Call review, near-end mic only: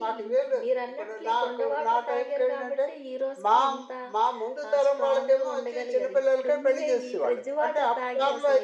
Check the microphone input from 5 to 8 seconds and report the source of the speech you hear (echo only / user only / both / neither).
echo only